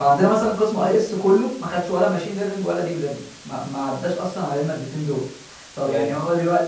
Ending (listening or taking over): listening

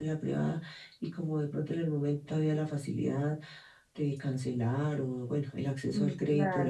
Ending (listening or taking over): listening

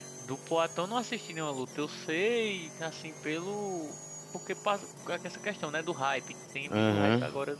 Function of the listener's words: taking over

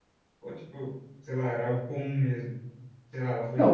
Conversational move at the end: taking over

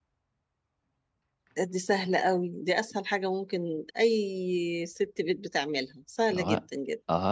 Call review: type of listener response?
taking over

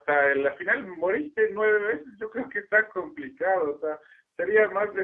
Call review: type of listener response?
listening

